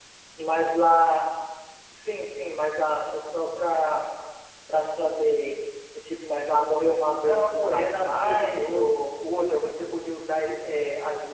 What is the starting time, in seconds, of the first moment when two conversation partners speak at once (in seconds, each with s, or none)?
7.2 s